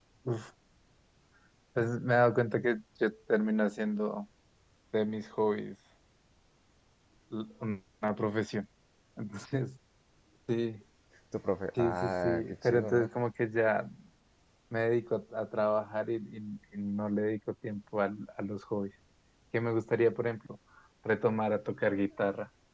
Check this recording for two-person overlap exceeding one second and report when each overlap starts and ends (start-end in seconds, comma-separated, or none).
11.8-13.1